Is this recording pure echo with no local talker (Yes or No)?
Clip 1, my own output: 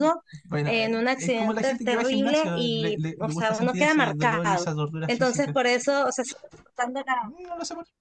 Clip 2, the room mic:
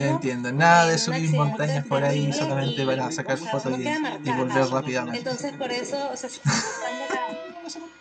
No